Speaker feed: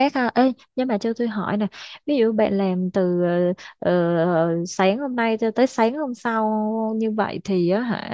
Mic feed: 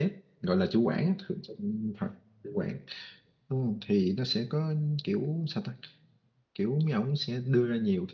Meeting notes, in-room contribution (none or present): present